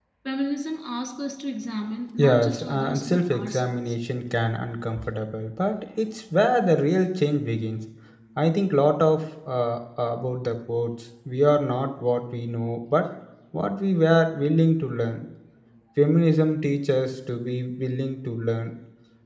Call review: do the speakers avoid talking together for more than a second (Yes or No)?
No